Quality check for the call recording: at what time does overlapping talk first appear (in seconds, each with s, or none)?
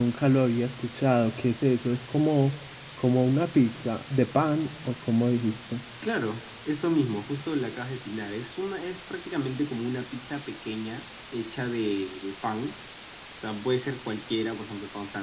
none